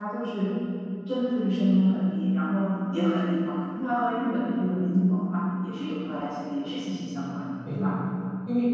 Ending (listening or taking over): taking over